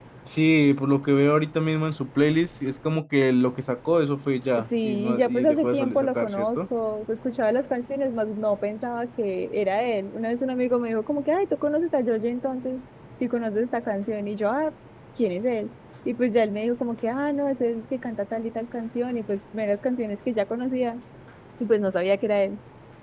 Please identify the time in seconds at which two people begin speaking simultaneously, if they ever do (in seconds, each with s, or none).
4.6 s